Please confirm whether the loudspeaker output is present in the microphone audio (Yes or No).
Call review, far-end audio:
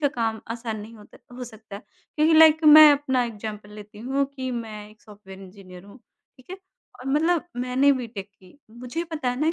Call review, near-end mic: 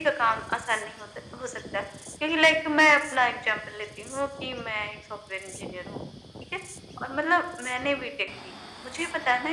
Yes